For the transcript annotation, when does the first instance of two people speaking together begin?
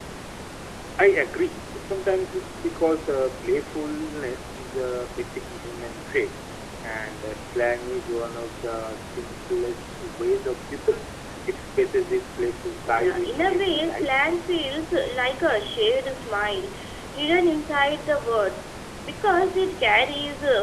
12.8 s

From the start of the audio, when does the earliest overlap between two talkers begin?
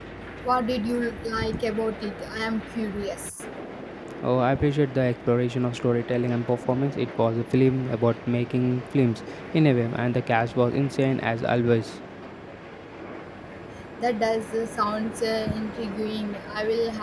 none

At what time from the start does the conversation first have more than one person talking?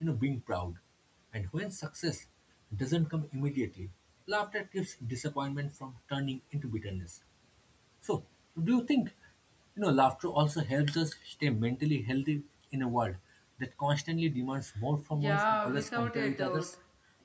15.1 s

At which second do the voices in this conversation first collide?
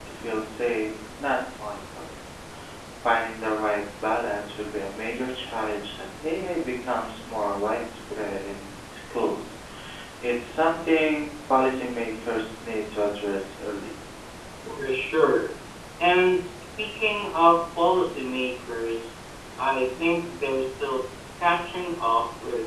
none

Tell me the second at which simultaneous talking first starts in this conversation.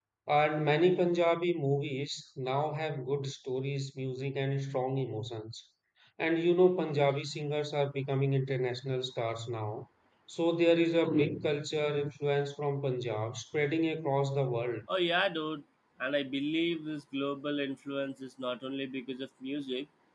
none

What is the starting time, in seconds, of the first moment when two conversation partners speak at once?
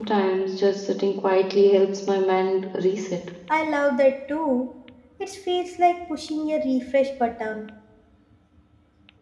none

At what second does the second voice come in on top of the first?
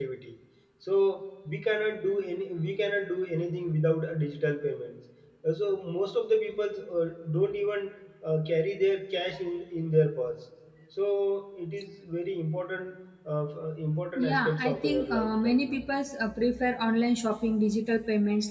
14.2 s

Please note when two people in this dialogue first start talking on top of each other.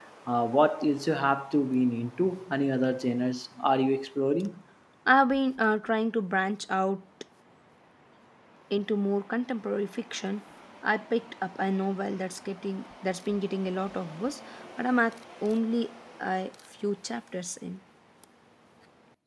none

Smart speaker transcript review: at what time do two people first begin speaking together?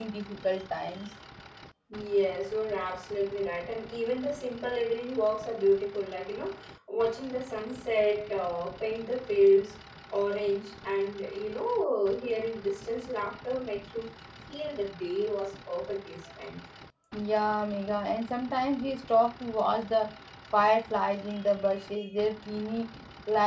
none

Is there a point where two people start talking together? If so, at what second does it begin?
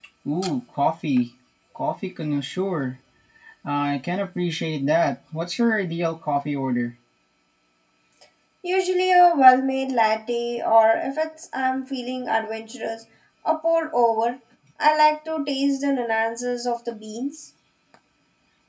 none

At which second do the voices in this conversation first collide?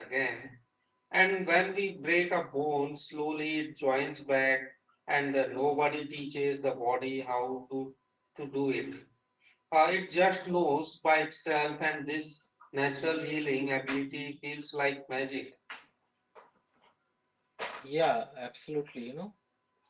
none

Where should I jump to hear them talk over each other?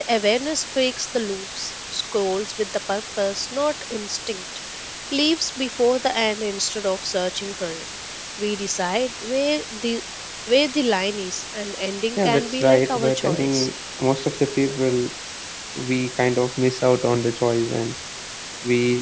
12.2 s

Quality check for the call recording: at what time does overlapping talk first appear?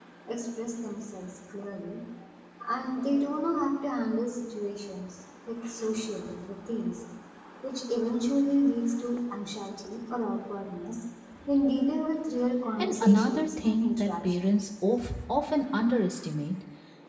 12.8 s

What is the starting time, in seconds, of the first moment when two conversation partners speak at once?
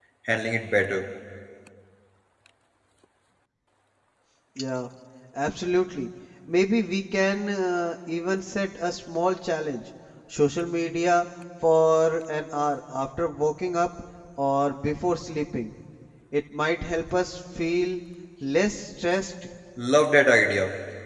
none

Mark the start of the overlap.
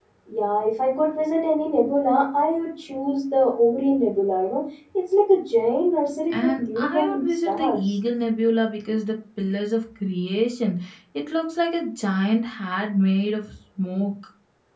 6.3 s

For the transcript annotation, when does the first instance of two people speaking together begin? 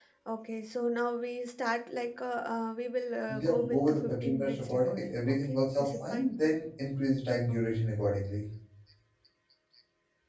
3.3 s

